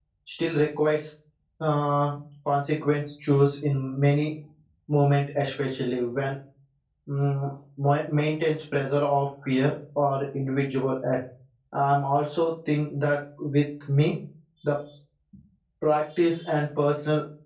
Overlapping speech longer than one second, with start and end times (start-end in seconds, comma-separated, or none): none